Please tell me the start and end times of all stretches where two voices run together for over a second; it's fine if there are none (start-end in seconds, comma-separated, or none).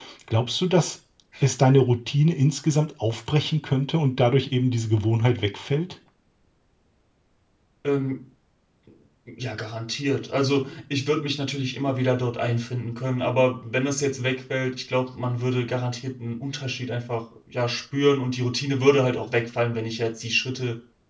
none